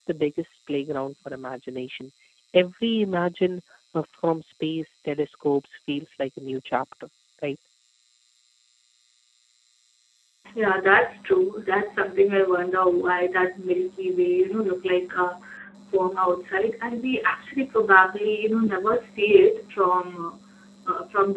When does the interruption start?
none

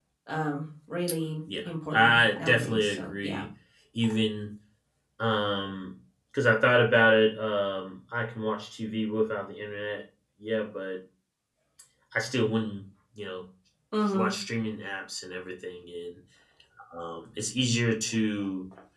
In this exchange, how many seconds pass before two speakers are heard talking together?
1.6 s

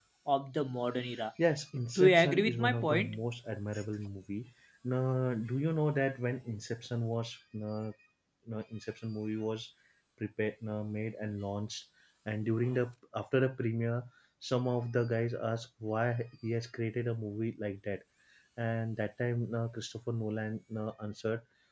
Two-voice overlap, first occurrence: 1.9 s

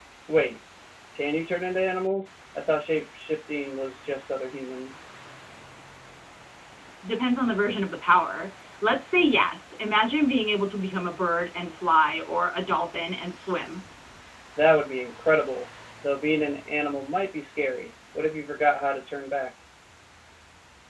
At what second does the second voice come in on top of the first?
none

